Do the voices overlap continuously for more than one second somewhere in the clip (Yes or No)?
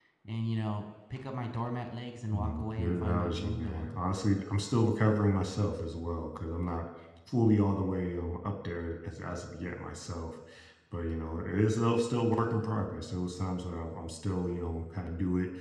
Yes